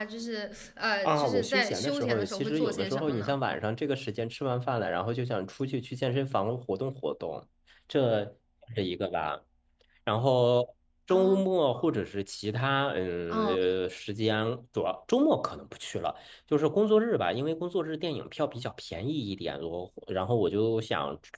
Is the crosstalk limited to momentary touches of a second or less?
No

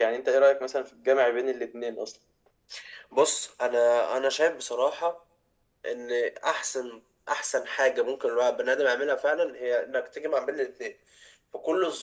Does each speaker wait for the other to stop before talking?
Yes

